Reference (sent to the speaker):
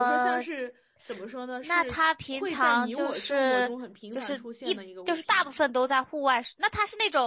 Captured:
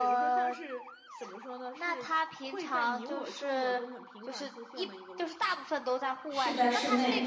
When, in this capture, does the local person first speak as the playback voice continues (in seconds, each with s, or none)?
6.3 s